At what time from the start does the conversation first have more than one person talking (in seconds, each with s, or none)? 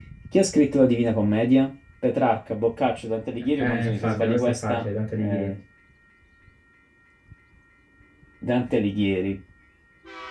3.6 s